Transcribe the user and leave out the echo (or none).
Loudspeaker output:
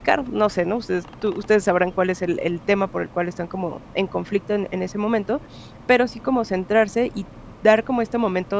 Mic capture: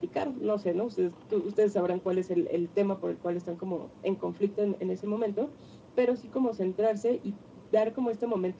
none